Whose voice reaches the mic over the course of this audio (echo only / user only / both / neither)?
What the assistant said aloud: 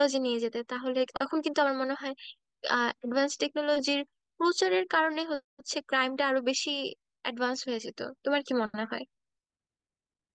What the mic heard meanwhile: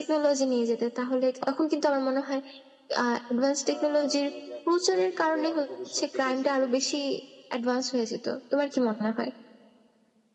both